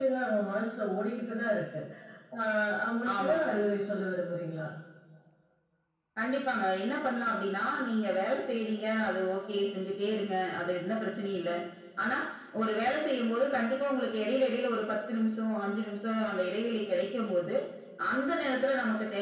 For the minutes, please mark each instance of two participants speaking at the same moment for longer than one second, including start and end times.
none

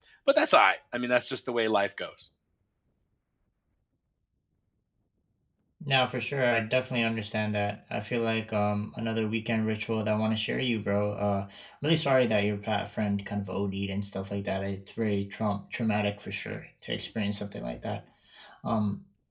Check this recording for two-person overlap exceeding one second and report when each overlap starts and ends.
none

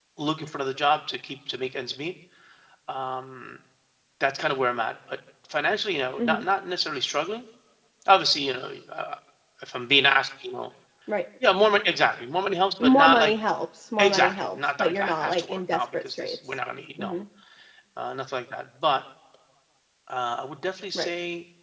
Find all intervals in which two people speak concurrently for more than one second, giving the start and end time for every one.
14.0-16.6

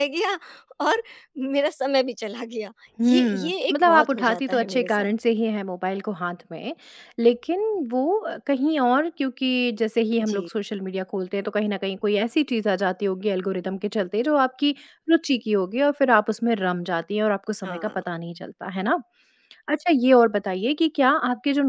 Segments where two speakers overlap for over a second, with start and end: 3.1-5.1

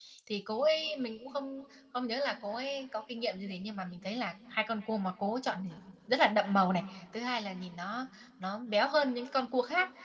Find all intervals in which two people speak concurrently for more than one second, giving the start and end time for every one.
none

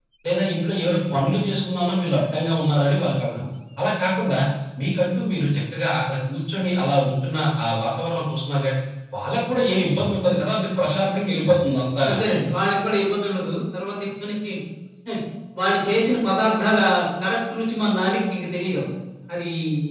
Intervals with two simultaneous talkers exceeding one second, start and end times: none

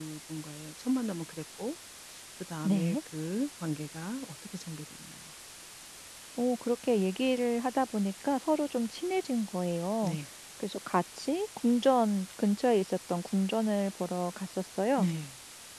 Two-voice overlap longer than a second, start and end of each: none

